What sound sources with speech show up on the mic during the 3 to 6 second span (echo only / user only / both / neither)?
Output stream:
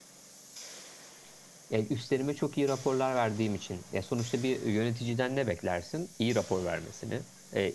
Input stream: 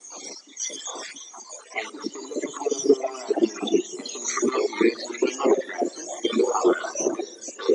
echo only